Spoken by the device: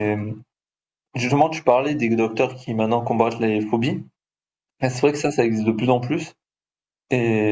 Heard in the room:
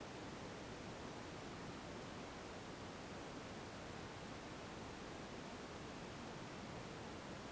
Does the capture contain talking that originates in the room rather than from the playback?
No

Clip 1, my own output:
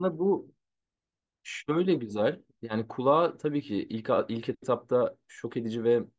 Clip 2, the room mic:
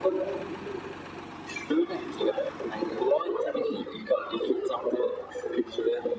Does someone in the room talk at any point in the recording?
No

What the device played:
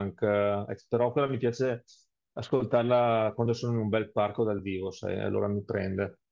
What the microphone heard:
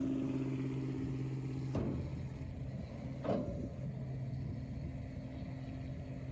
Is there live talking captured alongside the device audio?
No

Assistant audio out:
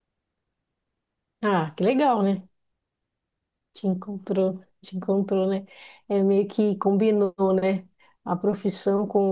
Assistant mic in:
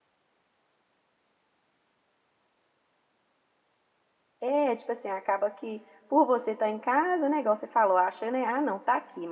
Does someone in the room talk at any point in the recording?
Yes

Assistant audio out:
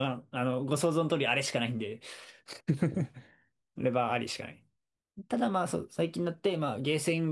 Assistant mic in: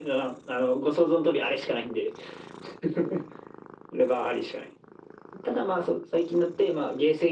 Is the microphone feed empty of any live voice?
Yes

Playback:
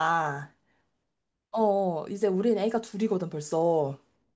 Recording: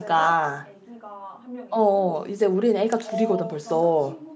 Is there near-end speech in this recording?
Yes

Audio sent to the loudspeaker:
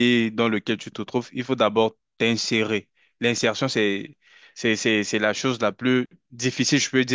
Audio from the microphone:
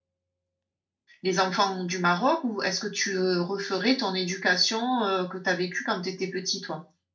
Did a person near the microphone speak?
Yes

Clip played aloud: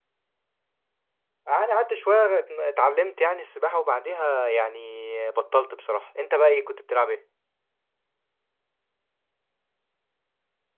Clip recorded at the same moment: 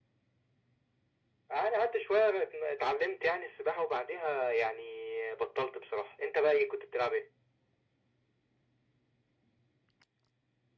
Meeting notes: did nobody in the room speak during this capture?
Yes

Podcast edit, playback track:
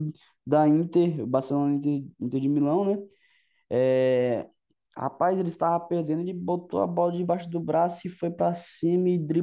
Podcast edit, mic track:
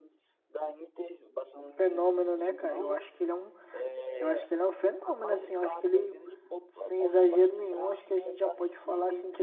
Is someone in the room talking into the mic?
Yes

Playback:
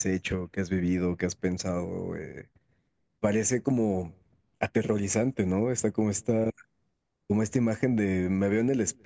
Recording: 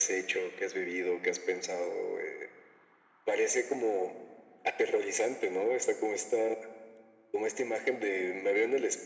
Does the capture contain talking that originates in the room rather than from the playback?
No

